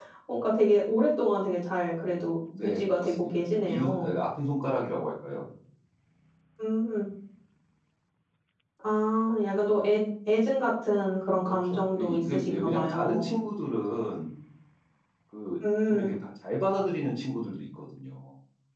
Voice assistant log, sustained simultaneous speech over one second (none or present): present